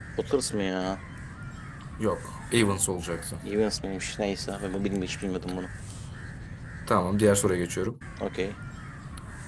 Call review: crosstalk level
none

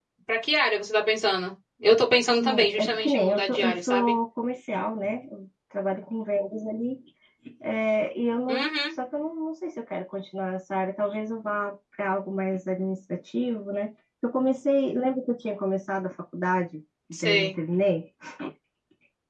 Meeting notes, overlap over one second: present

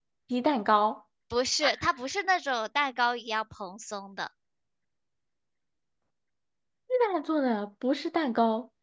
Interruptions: none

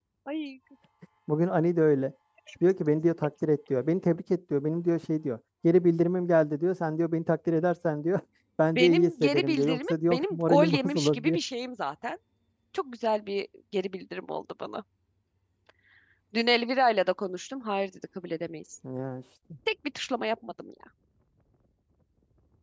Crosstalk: present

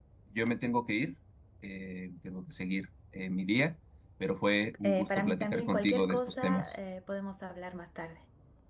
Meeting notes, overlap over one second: present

